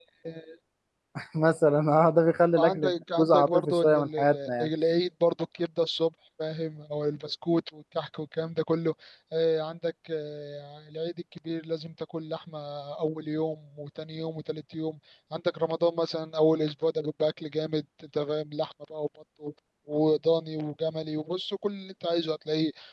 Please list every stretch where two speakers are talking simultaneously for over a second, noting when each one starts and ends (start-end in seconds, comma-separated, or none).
2.6-4.7